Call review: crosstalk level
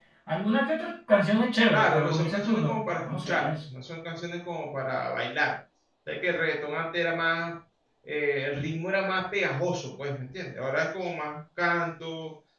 present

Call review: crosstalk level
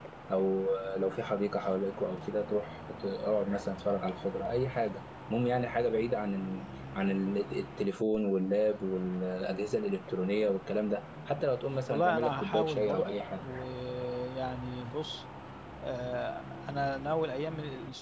present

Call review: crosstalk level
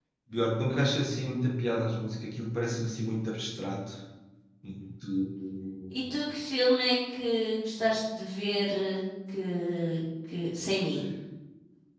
none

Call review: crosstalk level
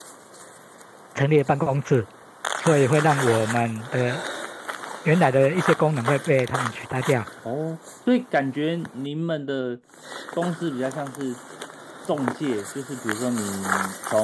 none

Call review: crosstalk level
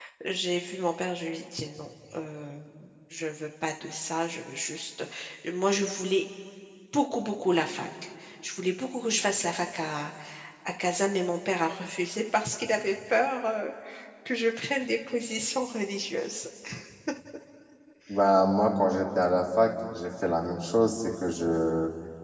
none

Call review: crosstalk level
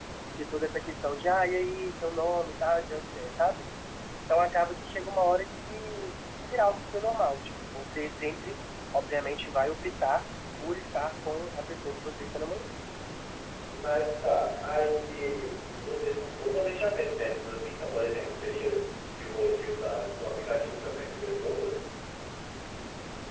none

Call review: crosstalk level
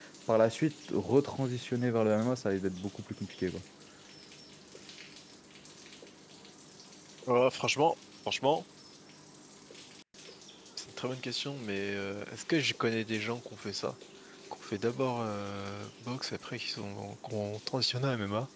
none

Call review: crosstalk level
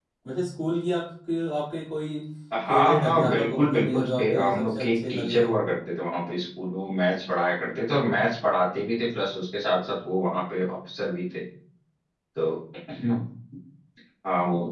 present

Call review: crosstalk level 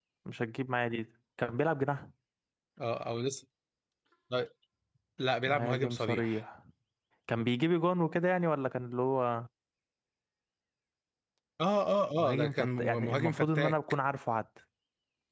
present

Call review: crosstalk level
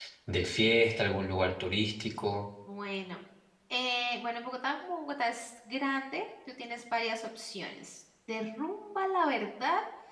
none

